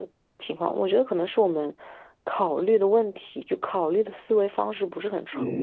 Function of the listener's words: taking over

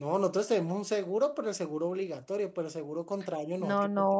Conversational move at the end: taking over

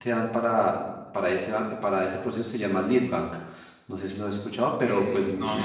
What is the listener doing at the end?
taking over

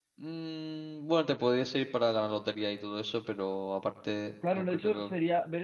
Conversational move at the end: taking over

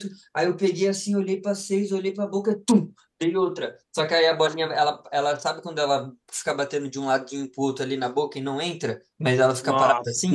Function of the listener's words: listening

